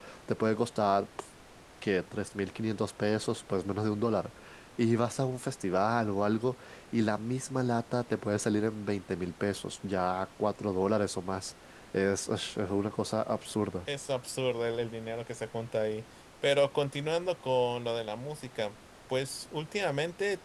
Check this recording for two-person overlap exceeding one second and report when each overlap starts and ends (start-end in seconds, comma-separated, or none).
none